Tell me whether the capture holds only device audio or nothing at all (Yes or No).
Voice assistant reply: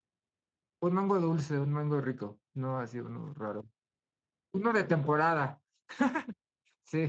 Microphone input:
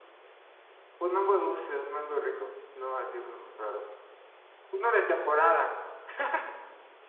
Yes